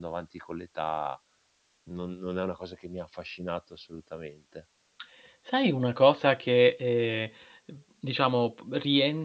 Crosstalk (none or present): none